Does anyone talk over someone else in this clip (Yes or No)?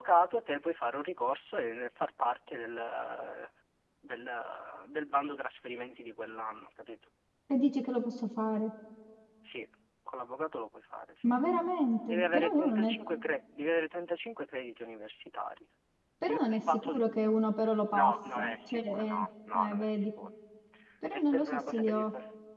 Yes